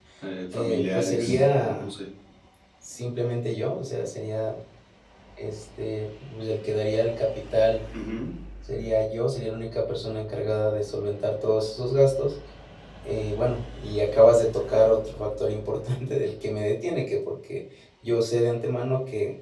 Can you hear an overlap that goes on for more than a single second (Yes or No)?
Yes